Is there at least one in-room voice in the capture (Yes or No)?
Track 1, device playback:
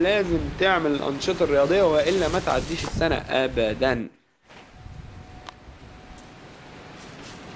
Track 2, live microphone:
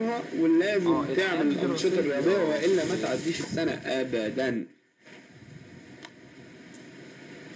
Yes